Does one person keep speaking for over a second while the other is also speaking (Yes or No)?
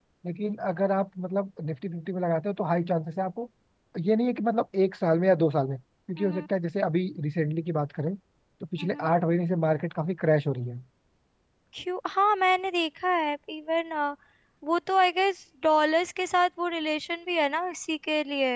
No